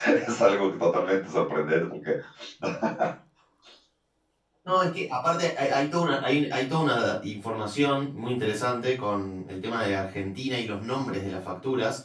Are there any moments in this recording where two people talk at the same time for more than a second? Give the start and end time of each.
none

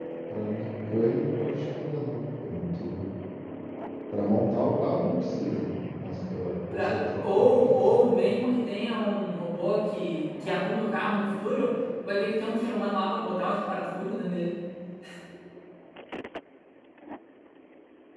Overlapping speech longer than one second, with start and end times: 6.7-8.0

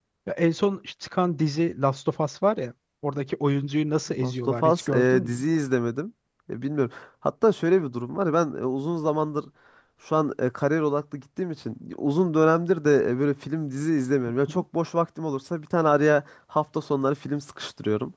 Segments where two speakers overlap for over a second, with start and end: 4.2-5.5

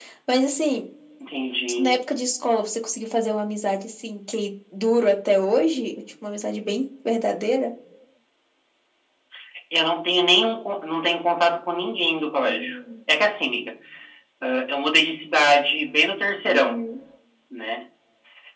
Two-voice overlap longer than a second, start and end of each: none

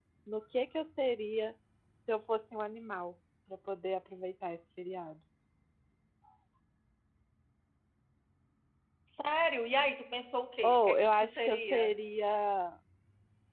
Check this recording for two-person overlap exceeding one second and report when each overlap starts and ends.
10.6-11.9

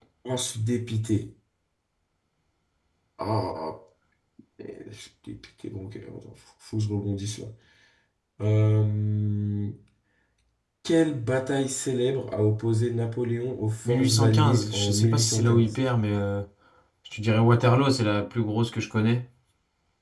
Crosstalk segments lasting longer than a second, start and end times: 13.8-15.8

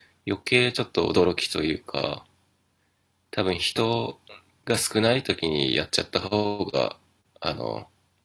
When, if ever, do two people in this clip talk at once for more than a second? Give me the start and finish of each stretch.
none

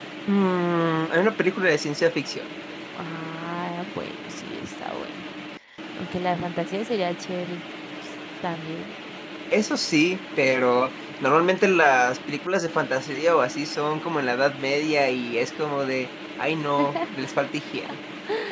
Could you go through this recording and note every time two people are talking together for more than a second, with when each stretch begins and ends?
none

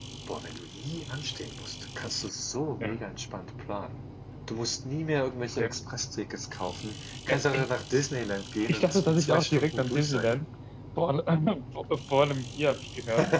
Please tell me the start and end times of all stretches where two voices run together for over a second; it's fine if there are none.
8.7-10.3

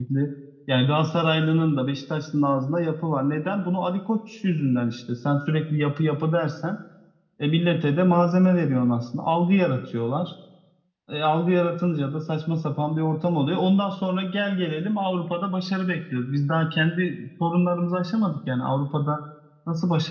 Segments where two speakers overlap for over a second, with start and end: none

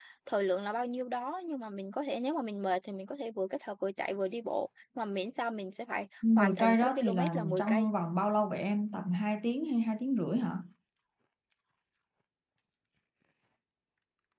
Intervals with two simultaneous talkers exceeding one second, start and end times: 6.4-7.9

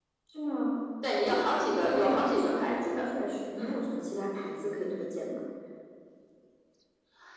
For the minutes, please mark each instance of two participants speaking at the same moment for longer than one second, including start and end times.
1.8-3.0

